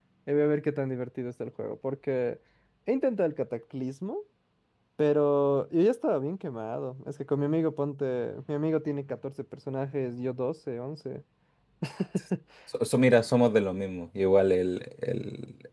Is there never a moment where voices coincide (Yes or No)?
Yes